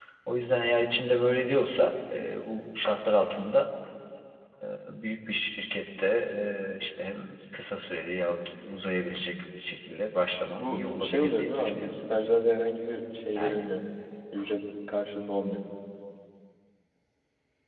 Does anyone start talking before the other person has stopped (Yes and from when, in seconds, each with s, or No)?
Yes, from 10.6 s